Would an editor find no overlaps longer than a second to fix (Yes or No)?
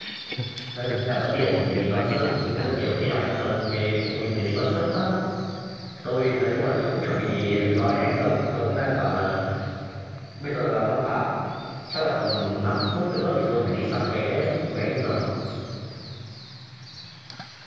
No